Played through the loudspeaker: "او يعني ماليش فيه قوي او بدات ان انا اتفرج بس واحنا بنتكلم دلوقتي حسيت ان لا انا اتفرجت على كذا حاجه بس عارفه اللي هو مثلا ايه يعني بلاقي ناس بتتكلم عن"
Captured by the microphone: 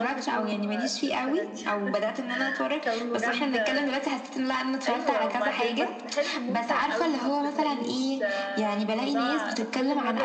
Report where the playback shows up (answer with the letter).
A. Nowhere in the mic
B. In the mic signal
B